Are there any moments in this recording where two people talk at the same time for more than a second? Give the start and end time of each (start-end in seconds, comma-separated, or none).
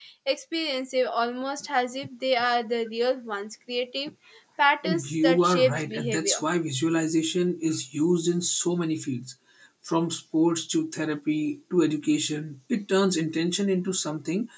4.8-6.4